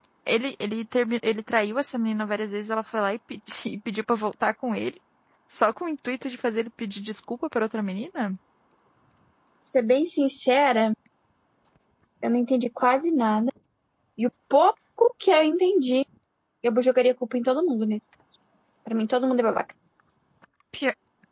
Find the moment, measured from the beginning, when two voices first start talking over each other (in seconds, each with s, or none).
none